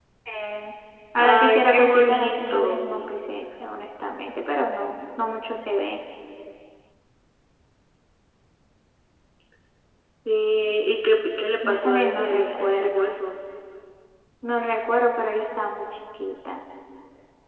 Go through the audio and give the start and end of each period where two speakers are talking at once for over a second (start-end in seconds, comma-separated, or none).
1.2-2.8, 11.7-13.2